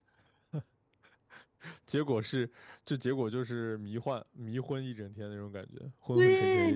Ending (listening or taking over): taking over